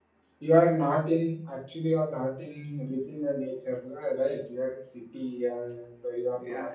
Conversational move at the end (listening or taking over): taking over